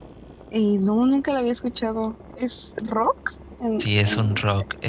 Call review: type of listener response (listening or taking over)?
taking over